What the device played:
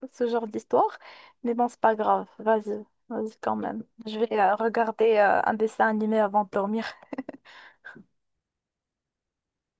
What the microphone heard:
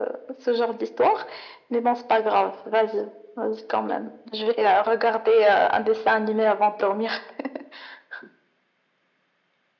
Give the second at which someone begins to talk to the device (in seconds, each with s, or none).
none